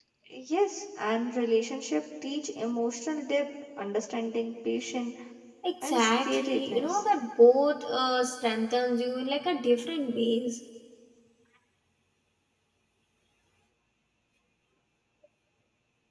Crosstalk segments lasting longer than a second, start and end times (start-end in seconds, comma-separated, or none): 5.8-7.0